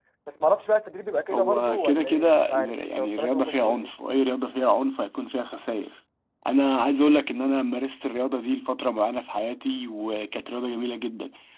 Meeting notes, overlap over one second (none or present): present